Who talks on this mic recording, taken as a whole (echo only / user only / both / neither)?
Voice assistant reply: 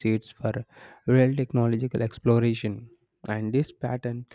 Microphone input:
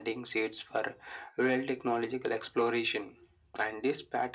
echo only